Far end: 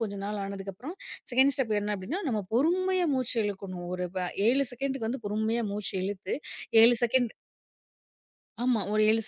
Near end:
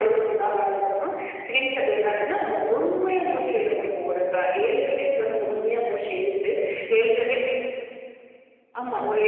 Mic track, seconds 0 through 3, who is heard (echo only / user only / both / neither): echo only